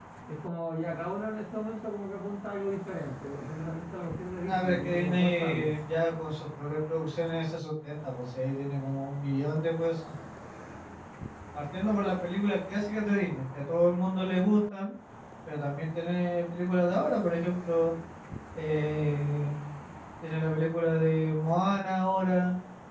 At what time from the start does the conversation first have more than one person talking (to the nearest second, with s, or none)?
4 s